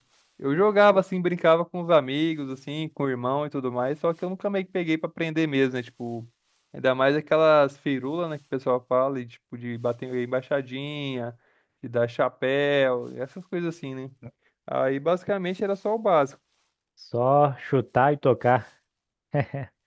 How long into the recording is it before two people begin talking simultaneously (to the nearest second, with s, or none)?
none